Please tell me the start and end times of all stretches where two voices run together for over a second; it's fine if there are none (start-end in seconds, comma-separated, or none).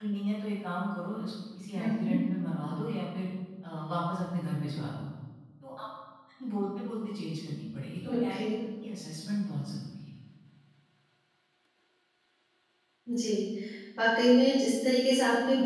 none